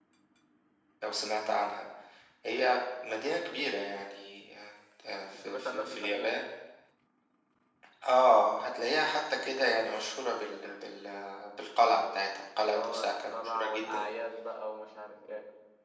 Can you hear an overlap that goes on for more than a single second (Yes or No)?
Yes